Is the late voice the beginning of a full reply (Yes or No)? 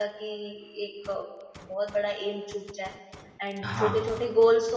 No